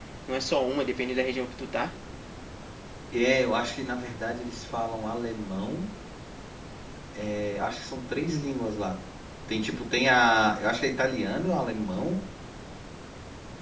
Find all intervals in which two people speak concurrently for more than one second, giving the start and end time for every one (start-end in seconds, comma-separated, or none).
none